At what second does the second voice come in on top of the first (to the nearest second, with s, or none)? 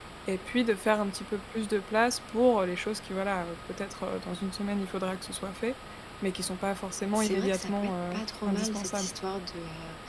7 s